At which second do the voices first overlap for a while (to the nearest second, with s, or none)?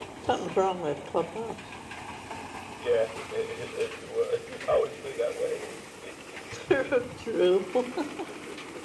none